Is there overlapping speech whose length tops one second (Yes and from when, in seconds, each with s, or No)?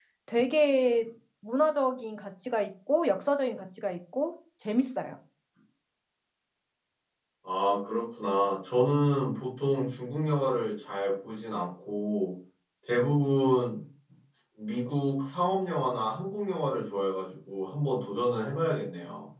No